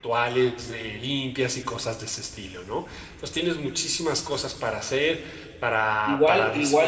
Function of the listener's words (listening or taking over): taking over